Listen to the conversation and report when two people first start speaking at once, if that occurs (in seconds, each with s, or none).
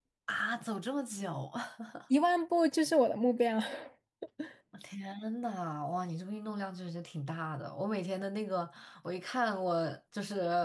none